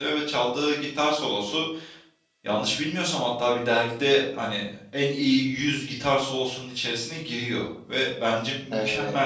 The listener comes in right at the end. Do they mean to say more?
No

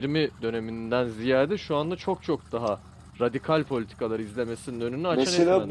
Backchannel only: No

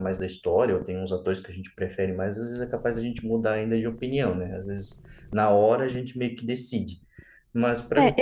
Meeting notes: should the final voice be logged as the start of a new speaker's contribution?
Yes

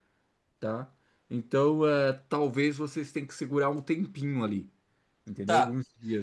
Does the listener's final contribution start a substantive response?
Yes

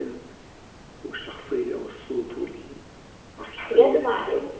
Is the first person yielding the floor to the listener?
Yes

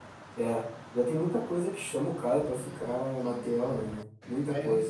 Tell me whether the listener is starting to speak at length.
Yes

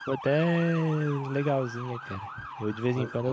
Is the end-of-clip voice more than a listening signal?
No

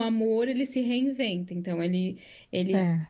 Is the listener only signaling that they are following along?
Yes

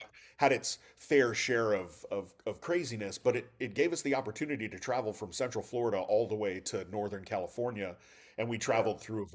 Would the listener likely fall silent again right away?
Yes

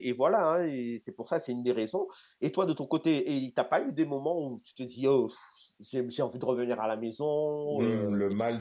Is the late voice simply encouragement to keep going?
No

